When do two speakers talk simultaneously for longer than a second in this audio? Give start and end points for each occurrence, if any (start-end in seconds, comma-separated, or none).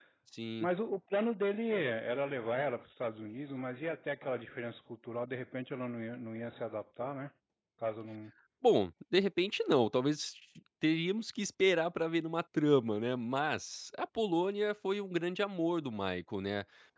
none